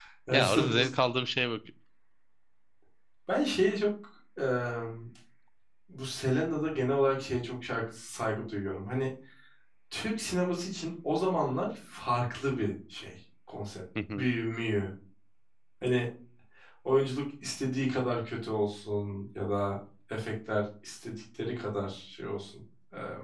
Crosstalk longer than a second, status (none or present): none